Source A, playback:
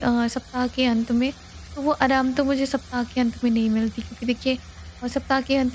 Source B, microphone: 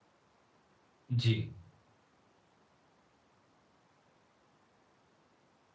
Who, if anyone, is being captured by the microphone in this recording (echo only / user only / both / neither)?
user only